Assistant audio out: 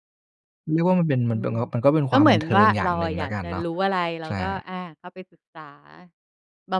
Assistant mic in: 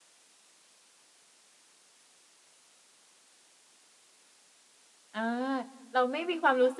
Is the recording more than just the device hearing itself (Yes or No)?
Yes